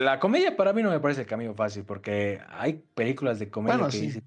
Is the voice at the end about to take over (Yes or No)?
No